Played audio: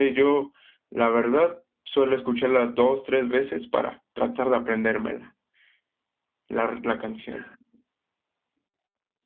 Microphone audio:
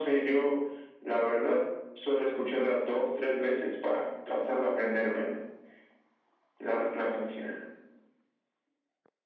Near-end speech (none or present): none